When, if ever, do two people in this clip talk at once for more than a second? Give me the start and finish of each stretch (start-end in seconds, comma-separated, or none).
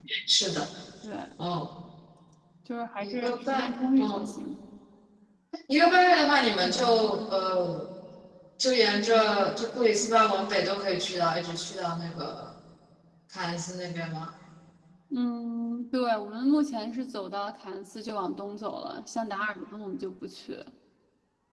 3.0-4.3